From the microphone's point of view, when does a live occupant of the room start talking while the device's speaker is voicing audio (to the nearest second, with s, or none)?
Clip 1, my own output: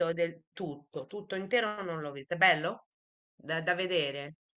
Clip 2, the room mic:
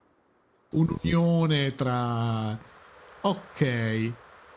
1 s